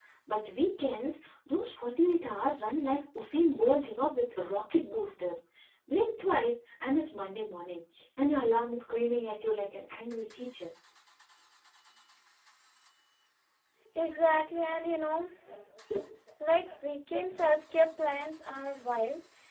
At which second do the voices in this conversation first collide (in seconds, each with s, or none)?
none